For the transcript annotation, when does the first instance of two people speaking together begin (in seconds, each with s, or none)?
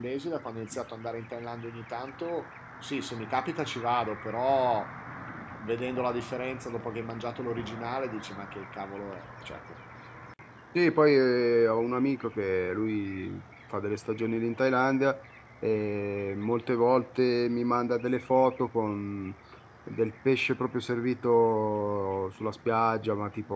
none